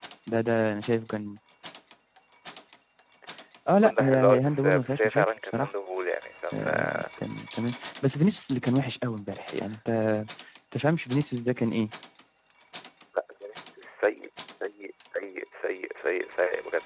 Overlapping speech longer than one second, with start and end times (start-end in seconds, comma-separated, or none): 3.7-5.7